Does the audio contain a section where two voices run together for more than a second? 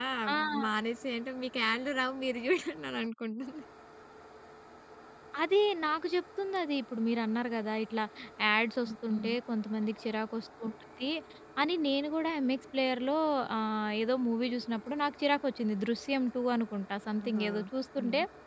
No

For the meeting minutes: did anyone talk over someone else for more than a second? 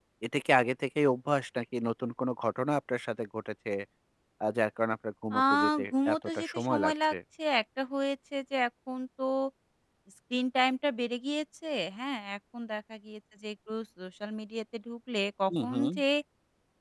Yes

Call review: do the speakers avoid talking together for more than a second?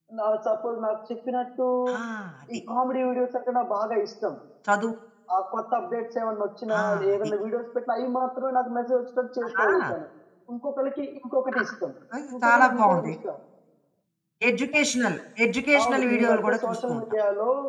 No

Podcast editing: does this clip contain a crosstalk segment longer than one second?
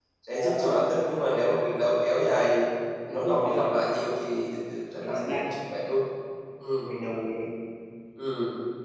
No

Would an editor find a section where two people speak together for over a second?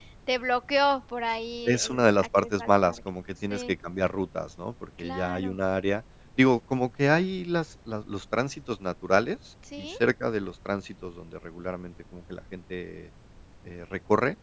Yes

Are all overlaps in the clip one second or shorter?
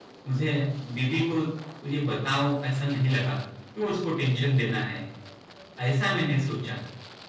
Yes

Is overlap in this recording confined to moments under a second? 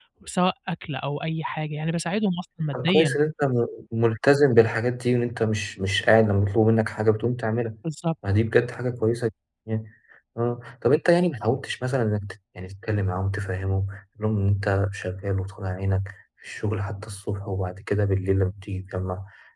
Yes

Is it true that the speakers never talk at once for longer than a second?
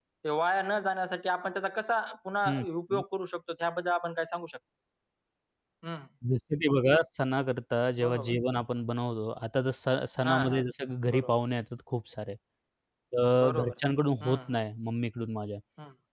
Yes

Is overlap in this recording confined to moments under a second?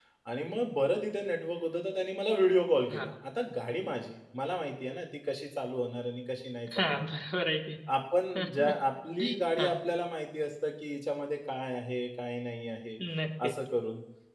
Yes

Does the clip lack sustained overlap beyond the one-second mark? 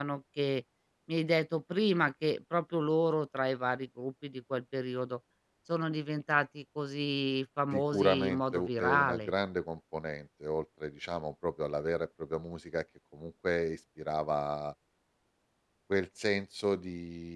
No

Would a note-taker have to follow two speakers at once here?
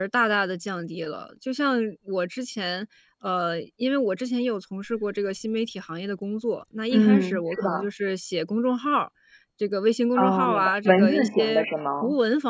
Yes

